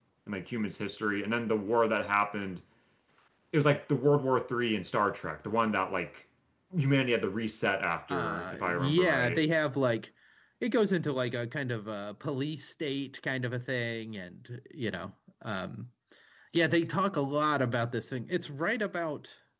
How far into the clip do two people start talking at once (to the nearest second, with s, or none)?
8 s